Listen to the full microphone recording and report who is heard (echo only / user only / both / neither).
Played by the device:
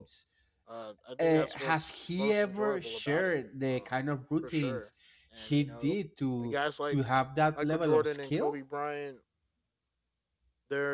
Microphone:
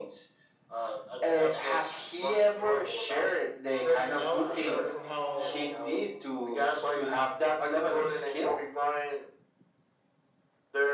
both